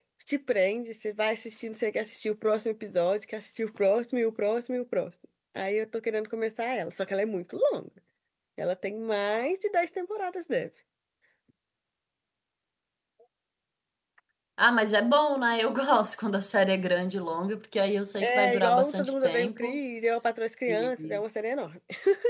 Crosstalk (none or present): present